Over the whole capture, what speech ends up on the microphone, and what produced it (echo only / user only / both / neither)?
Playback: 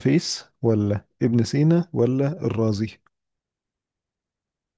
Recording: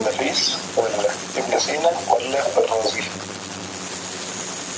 echo only